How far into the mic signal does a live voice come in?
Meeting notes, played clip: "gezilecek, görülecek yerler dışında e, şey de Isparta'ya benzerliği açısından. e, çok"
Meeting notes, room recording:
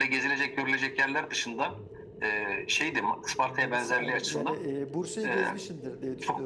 3.4 s

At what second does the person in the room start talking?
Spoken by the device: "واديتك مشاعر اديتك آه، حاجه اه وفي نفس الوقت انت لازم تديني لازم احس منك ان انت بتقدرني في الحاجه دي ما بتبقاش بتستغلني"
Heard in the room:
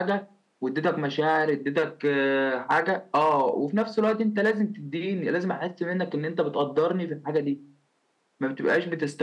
none

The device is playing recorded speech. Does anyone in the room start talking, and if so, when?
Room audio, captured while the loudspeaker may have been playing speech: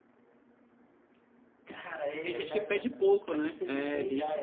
2.2 s

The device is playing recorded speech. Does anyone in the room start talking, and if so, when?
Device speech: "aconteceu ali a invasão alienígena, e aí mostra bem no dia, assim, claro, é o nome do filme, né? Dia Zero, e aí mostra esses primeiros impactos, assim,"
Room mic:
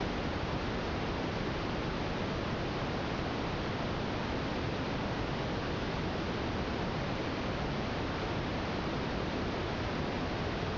none

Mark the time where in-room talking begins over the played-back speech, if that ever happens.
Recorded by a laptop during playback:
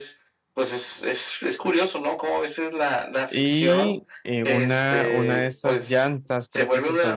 3.3 s

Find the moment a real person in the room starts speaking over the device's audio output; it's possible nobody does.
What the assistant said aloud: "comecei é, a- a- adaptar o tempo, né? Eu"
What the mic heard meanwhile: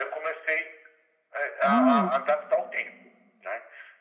1.6 s

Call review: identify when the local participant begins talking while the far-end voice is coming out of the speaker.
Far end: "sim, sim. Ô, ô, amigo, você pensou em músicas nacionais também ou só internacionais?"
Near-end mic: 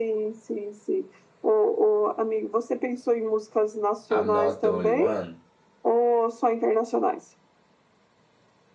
4.1 s

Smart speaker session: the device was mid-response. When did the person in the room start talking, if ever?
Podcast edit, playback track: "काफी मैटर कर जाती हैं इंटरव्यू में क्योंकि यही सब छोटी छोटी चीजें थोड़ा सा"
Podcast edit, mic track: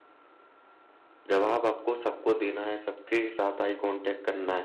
1.3 s

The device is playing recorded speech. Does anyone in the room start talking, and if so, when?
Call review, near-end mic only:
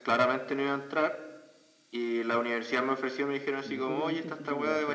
3.6 s

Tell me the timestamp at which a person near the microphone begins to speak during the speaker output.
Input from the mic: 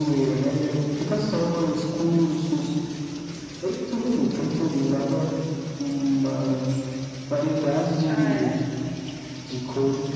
8.0 s

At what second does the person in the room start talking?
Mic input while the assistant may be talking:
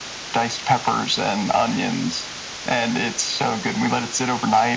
none

